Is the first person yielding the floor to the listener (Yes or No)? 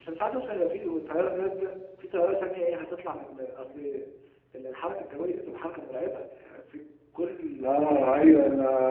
Yes